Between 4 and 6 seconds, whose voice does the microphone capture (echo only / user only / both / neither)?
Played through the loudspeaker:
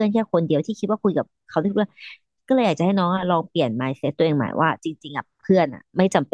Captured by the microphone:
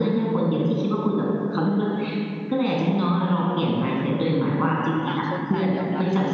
both